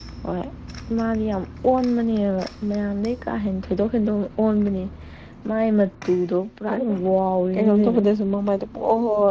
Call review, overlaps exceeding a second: none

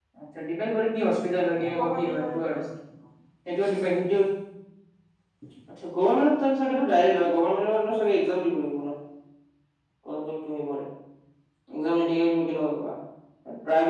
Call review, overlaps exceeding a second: present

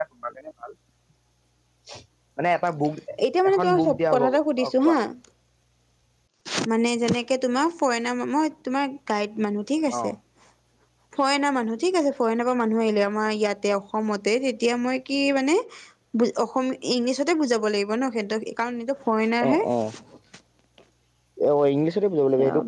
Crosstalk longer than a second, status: present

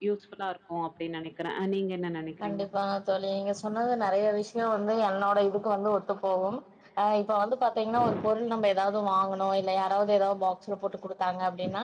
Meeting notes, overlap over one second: none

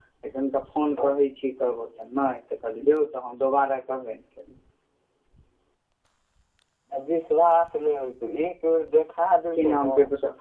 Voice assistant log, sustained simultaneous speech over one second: none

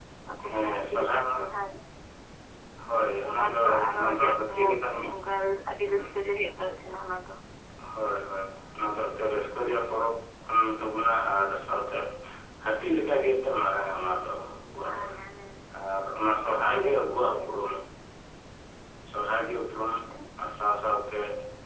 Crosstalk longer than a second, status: present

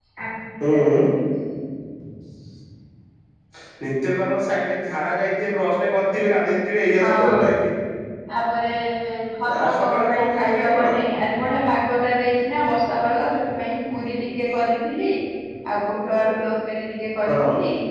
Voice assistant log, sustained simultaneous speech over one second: present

